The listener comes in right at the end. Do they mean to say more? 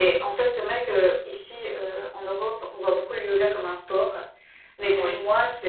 No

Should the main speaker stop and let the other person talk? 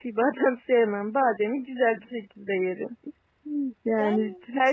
No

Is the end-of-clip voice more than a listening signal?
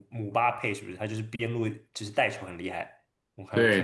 Yes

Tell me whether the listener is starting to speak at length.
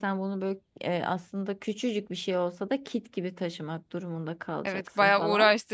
Yes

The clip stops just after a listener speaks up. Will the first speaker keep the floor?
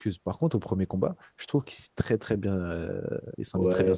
No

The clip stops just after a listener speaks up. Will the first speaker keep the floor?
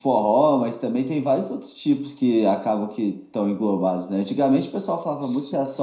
Yes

